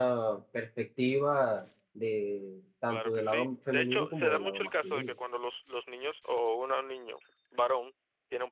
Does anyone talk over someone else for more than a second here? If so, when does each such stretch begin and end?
2.9-5.1

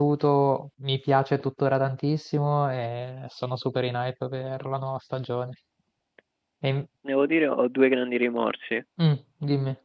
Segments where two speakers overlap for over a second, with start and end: none

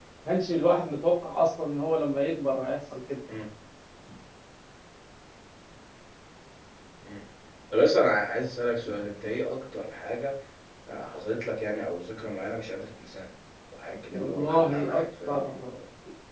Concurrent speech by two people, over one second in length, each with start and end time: 14.1-15.4

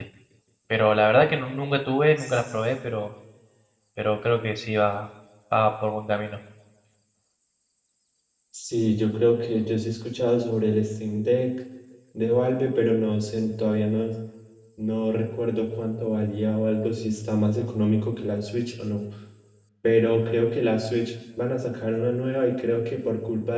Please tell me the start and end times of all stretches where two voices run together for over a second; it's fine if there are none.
none

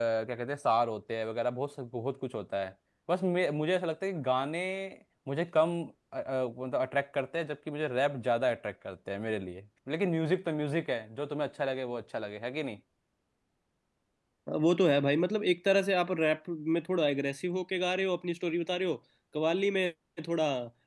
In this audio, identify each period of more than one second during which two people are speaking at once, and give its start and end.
none

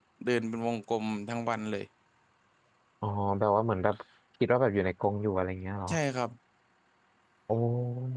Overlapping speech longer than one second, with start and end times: none

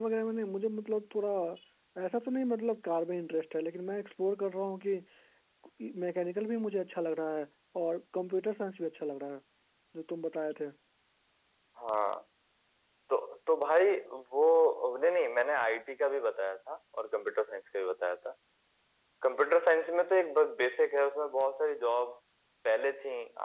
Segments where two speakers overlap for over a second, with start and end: none

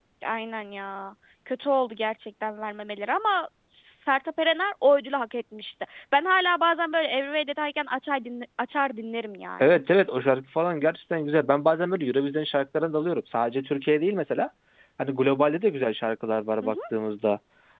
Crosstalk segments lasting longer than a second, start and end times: none

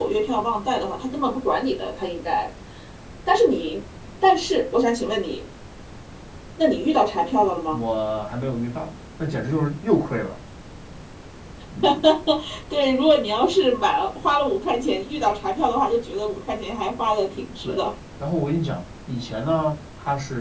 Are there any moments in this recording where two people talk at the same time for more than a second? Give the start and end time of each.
none

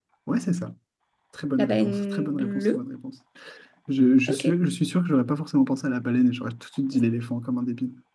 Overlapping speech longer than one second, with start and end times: 1.6-2.8

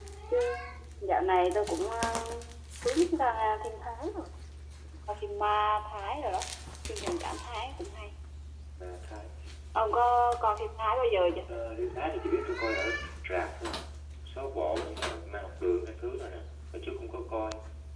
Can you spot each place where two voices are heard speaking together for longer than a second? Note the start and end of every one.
none

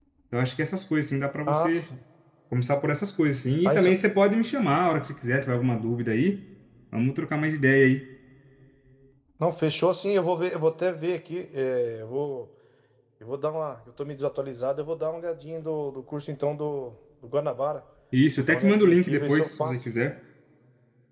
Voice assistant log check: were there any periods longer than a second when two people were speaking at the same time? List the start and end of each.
18.4-19.8

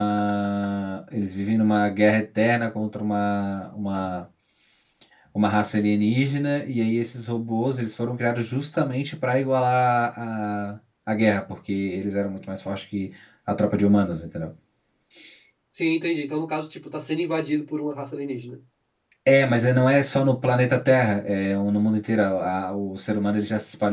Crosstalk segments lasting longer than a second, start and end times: none

